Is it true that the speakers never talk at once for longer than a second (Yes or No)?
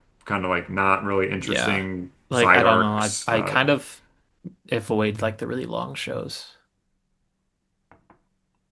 No